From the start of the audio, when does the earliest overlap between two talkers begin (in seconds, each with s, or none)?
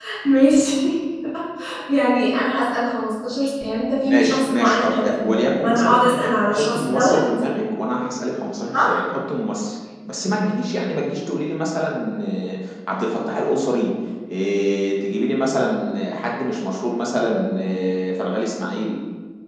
4.1 s